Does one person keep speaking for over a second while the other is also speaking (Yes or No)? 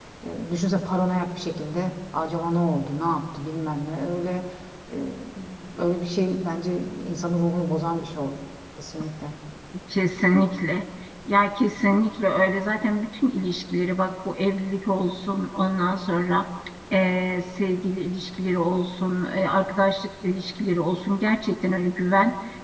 No